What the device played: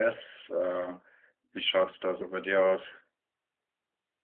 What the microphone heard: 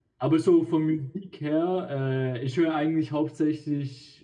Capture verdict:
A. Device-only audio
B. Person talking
B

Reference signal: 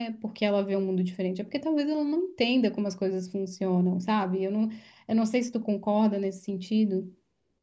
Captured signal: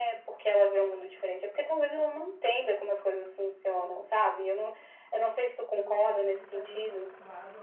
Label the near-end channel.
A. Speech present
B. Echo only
A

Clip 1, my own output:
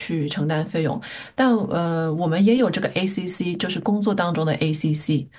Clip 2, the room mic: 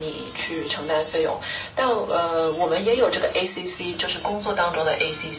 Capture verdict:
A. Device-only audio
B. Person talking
A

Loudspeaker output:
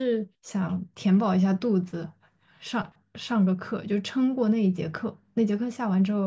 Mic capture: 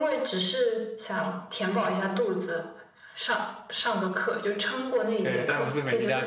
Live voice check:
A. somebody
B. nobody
A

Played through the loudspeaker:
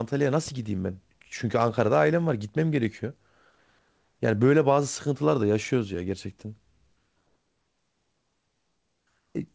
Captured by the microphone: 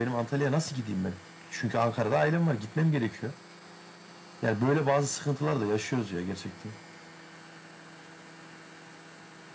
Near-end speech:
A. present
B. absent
B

